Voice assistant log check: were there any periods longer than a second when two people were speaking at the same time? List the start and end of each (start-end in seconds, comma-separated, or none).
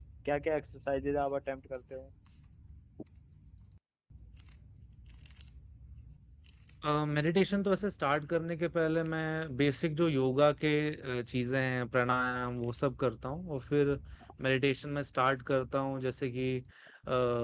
none